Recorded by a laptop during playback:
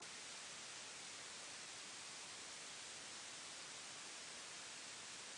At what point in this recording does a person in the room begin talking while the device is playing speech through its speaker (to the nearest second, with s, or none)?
none